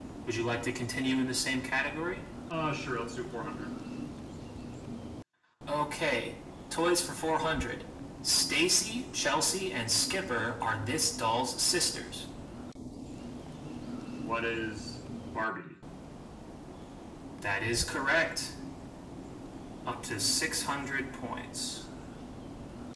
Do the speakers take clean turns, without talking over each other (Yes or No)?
Yes